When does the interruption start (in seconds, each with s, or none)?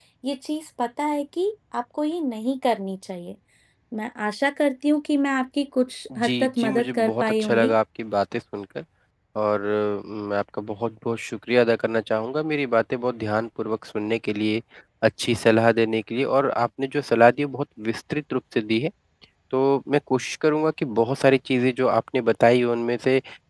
6.1 s